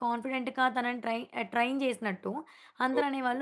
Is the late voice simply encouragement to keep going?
Yes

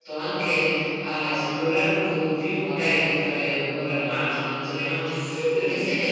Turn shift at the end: No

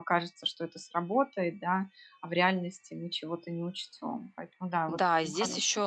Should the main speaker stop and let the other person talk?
Yes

